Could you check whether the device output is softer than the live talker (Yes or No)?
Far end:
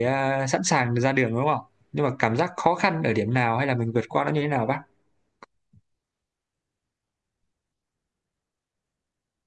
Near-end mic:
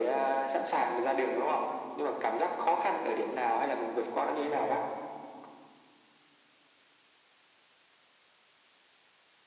No